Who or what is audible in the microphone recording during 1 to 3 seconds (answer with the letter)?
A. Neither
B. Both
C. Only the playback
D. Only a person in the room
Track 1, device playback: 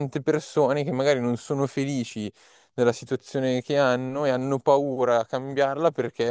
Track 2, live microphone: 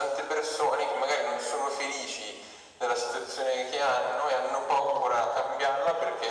C